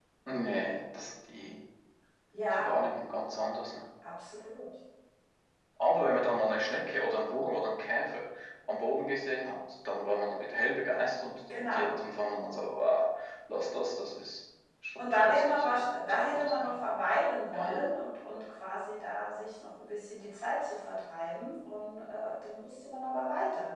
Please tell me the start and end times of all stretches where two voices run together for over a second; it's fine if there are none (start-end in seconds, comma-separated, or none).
15.0-16.7